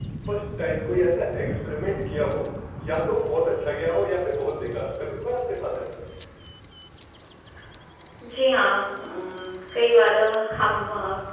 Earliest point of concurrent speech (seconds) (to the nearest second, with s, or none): none